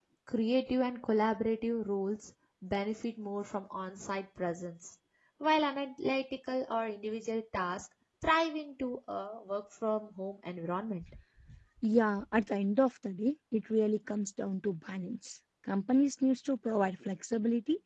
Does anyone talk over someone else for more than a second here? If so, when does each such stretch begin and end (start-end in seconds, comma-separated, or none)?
none